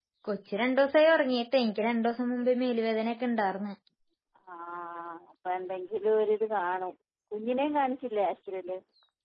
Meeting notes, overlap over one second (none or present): none